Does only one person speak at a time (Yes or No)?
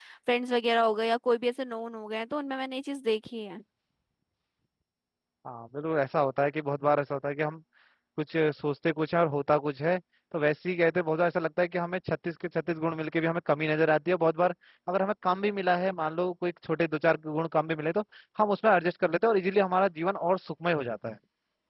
Yes